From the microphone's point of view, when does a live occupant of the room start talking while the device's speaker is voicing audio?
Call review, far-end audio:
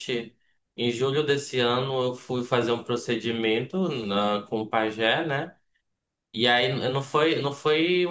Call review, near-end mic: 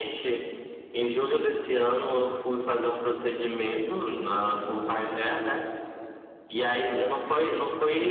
none

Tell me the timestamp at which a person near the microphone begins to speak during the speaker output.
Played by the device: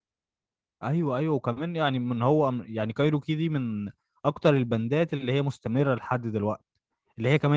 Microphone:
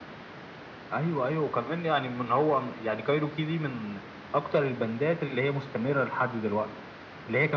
none

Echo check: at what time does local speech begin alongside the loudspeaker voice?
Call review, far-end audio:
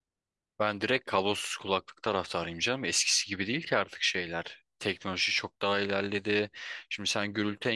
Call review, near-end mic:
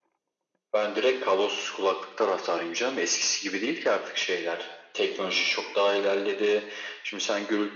none

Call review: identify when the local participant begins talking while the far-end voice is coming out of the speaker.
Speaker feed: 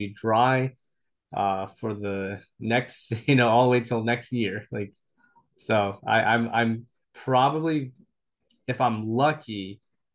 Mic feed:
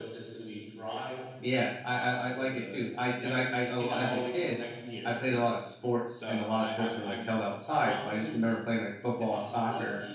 1.4 s

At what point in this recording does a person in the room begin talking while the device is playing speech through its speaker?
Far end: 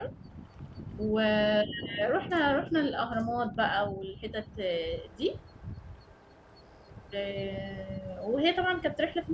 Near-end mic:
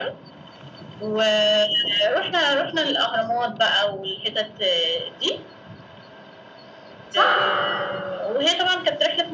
7.1 s

